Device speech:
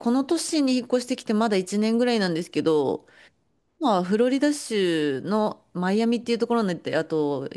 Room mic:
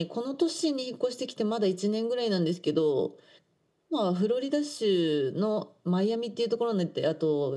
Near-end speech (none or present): none